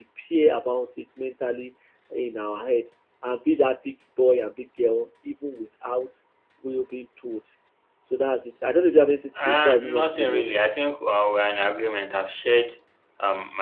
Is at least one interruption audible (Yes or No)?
Yes